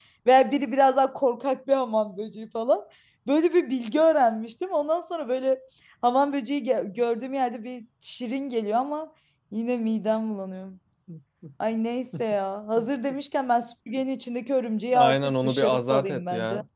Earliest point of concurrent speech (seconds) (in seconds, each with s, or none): 14.9 s